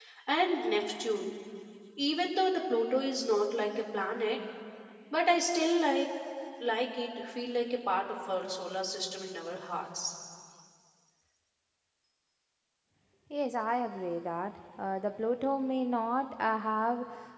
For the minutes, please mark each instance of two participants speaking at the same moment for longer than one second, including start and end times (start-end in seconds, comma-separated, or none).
none